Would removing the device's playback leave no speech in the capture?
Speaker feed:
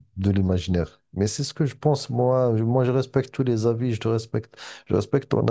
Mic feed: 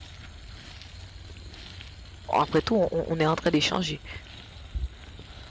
No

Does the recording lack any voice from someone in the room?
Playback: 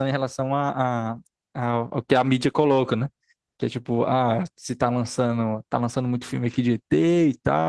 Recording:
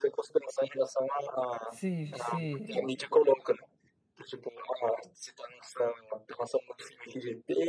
No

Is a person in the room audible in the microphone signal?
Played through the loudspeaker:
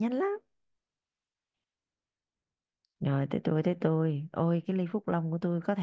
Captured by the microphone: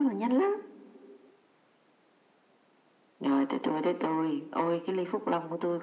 No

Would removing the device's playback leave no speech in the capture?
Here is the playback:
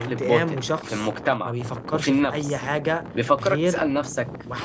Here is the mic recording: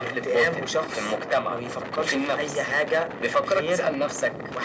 Yes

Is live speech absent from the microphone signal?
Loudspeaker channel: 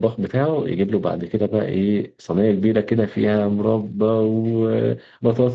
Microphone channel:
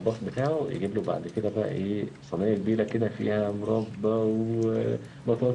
Yes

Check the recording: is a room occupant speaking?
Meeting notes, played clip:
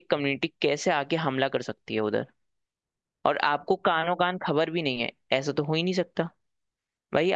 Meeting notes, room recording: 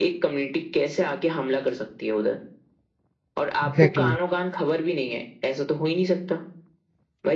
Yes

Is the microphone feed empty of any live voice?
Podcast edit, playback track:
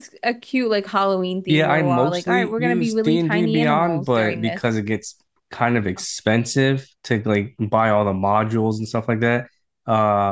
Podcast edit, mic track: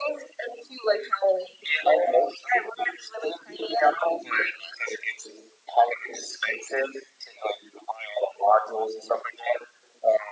Yes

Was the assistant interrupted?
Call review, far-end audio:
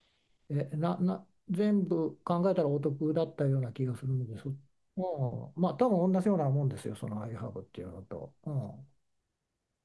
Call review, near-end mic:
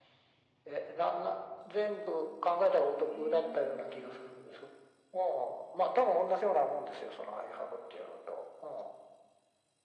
Yes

